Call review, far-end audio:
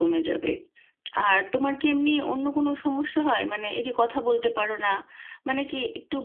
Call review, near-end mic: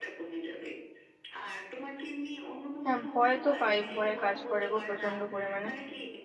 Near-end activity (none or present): present